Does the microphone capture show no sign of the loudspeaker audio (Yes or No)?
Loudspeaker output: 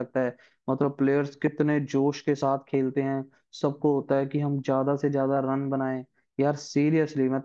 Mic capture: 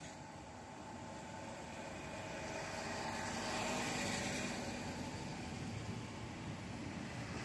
Yes